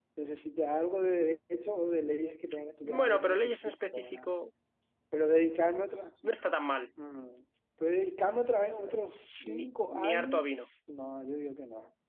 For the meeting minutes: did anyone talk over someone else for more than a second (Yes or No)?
Yes